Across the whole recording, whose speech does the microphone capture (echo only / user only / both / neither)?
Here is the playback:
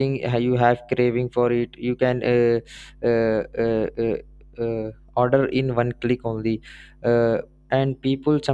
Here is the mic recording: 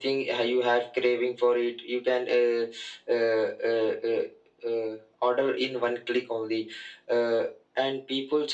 echo only